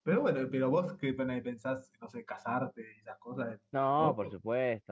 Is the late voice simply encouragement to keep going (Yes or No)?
No